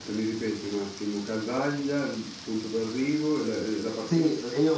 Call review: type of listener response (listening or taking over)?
taking over